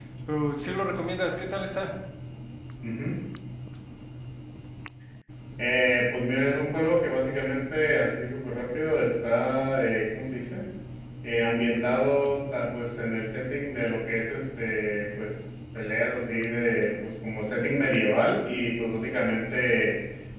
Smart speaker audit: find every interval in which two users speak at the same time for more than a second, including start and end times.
none

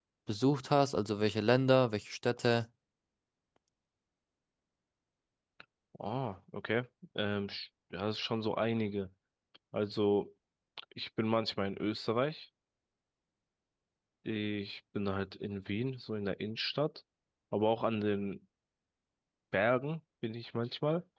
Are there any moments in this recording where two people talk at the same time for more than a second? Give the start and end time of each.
none

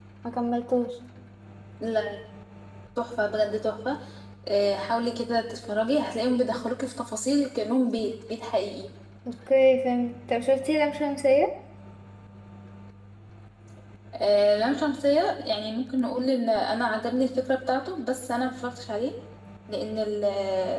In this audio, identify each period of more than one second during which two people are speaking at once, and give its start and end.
none

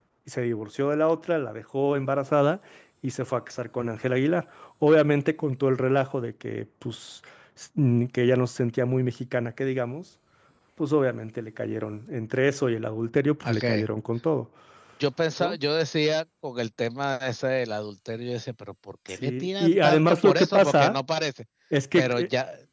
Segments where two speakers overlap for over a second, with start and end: 19.1-20.9

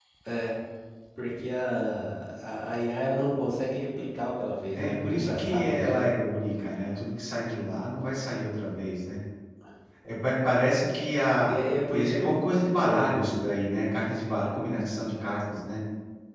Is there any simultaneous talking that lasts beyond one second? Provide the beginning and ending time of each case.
4.8-6.1, 11.9-13.6

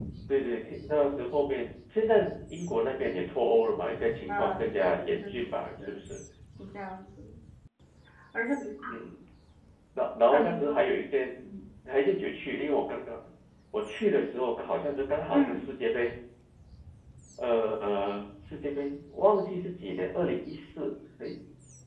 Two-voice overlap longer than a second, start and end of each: 4.3-5.9

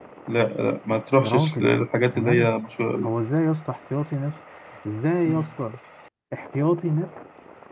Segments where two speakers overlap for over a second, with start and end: none

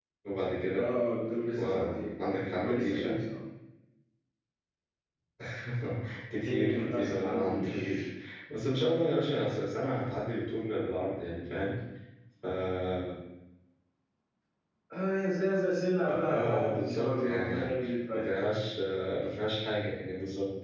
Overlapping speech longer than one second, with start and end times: 6.5-8.0, 16.1-17.7

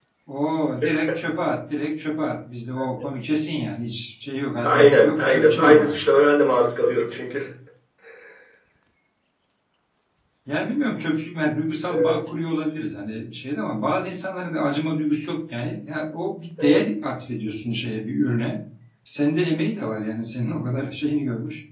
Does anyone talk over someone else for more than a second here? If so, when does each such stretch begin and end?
4.6-6.0

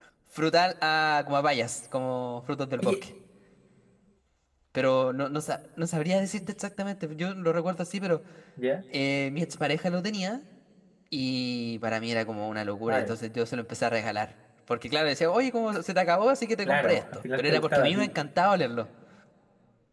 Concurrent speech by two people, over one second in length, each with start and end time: 16.6-18.1

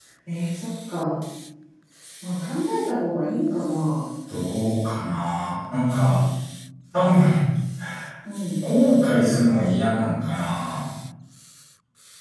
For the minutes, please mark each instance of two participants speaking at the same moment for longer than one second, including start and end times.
none

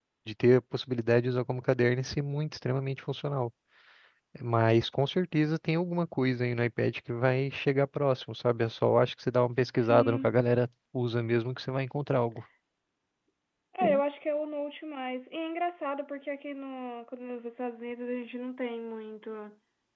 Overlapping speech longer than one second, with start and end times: none

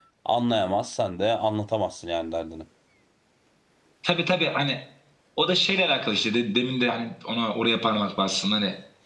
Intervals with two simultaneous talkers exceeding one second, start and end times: none

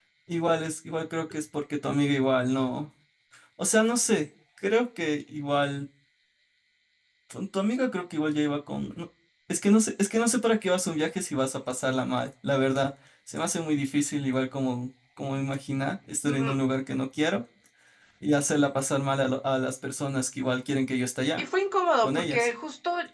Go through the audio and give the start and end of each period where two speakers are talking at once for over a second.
none

